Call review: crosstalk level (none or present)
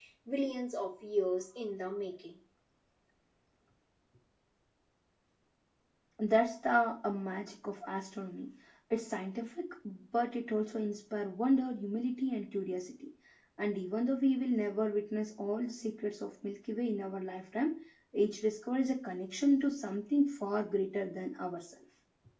none